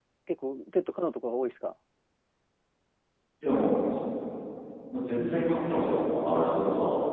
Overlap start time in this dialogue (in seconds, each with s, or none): none